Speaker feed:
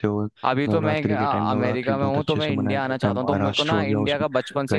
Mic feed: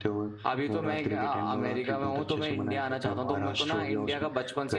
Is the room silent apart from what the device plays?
Yes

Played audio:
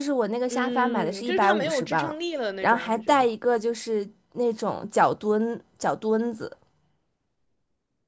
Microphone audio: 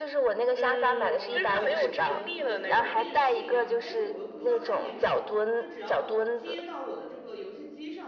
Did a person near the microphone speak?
Yes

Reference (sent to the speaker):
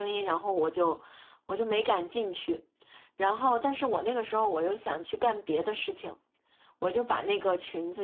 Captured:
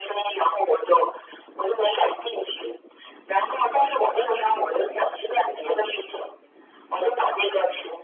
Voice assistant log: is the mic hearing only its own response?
Yes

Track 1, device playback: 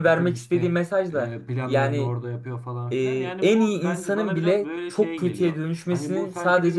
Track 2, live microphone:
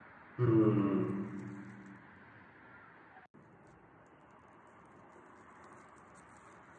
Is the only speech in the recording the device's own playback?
No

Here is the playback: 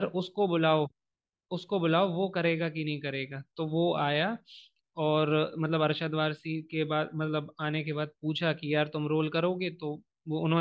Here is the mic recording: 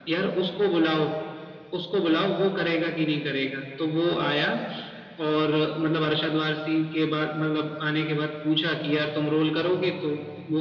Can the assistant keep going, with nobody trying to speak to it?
Yes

